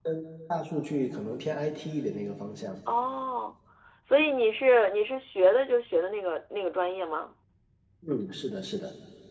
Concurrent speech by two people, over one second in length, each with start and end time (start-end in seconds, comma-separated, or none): none